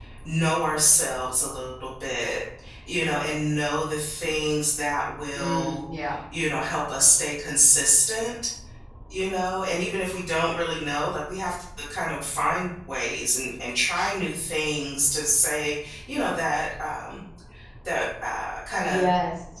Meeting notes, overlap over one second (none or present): none